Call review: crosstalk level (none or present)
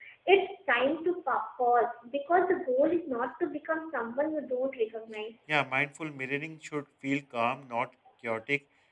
none